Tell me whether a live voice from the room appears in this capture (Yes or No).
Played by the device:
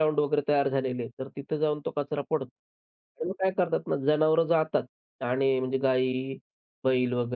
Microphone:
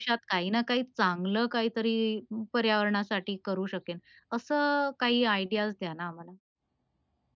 Yes